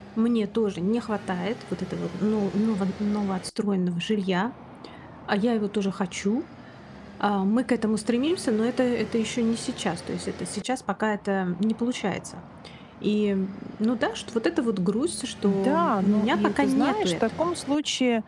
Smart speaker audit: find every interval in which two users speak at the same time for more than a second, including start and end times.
15.4-17.5

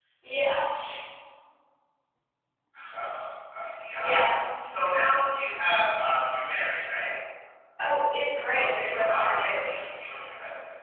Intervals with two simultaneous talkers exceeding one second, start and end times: 8.6-9.8

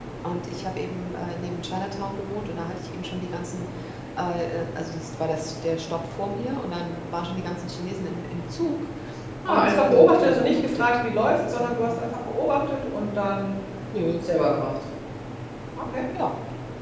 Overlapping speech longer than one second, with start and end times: 9.5-10.8

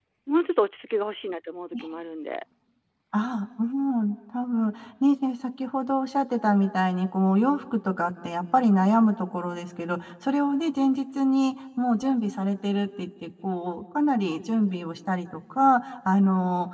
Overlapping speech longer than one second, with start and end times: none

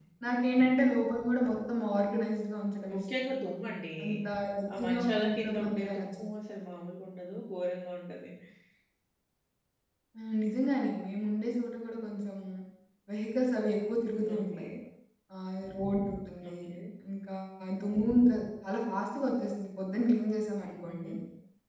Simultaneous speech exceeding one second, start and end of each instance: 4.8-6.0

